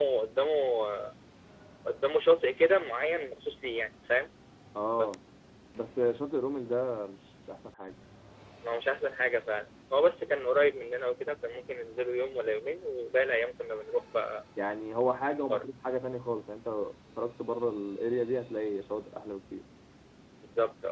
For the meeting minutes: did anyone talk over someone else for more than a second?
No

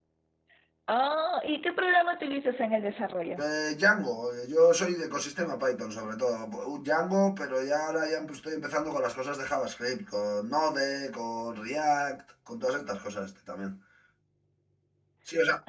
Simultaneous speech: No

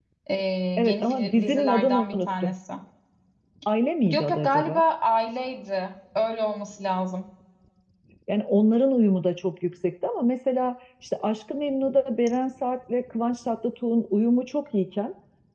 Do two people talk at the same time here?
Yes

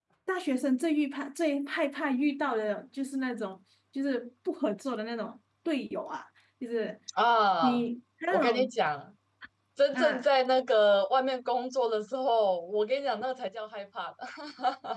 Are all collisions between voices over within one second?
Yes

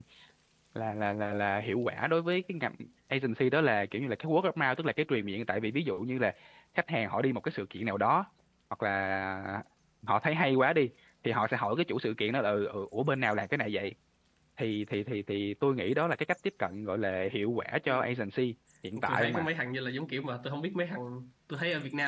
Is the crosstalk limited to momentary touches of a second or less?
Yes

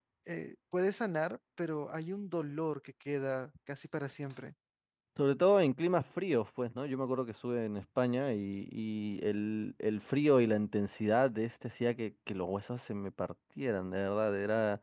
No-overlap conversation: Yes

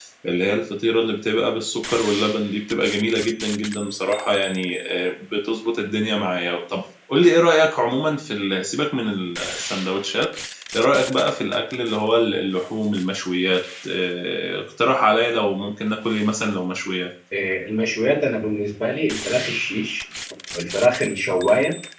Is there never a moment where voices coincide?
Yes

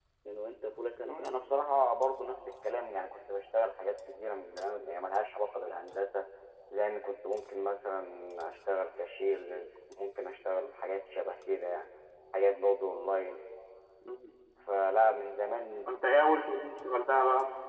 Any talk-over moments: No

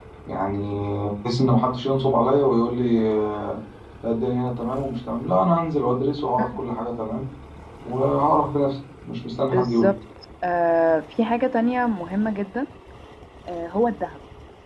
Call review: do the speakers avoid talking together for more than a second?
Yes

